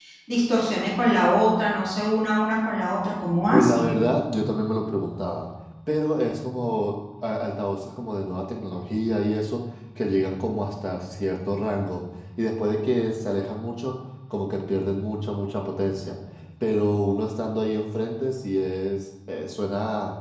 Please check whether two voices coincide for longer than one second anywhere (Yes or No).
No